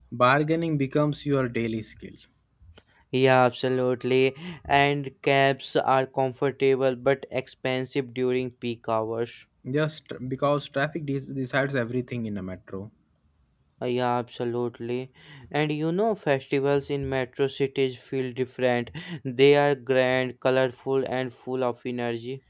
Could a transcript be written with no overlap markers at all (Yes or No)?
Yes